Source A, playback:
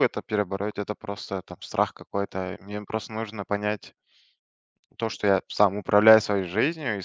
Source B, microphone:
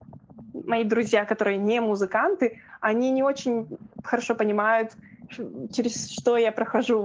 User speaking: Yes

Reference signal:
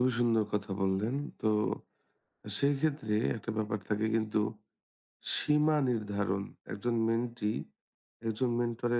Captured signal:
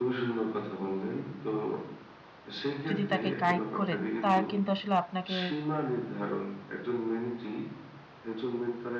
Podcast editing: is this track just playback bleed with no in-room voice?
No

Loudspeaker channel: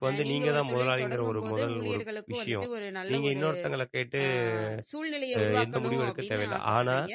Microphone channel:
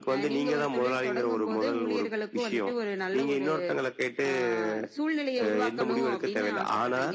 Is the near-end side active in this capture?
No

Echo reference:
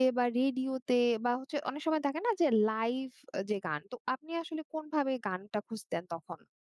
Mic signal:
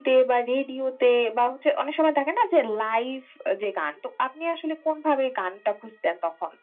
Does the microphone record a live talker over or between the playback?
No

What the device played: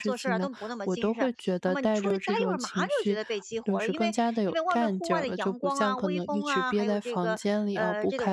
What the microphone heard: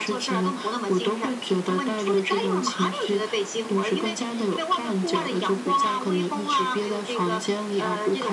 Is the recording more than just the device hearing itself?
No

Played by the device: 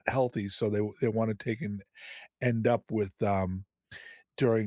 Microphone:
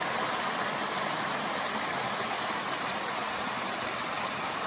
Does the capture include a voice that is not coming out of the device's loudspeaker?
No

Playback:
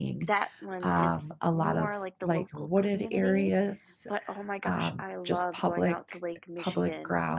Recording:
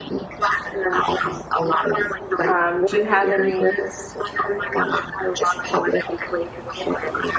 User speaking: Yes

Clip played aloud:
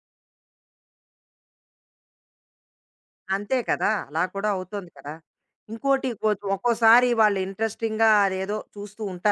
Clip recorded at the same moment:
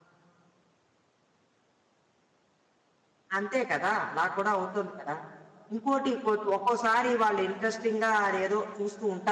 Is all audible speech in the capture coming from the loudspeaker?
Yes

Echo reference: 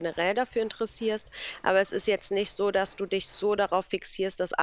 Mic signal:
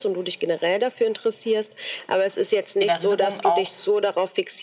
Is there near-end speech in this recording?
Yes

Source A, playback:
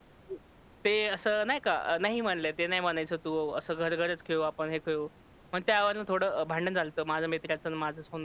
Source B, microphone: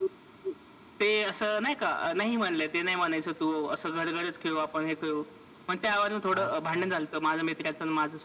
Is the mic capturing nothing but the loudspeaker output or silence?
No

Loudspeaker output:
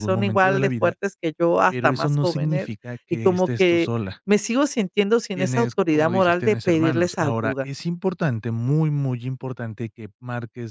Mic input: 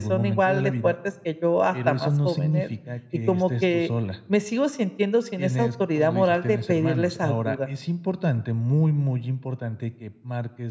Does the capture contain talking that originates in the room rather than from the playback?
No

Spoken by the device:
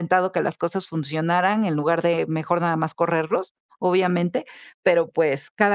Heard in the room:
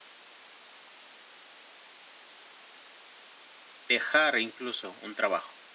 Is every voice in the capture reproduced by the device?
No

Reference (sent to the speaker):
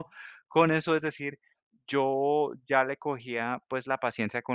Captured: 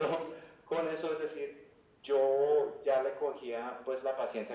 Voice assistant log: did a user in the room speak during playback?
No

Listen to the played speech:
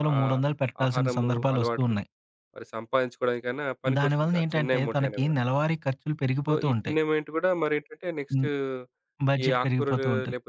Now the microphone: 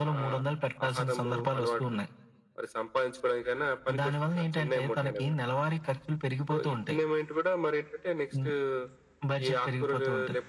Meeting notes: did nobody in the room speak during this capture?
Yes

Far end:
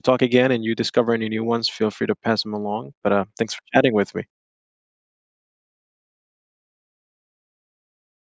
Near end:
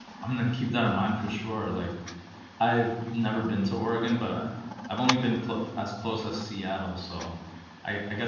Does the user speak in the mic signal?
Yes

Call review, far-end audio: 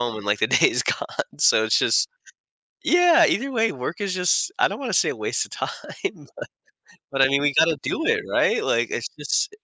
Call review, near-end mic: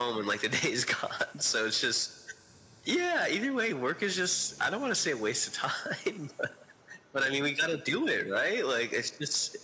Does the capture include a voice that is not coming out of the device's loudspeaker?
No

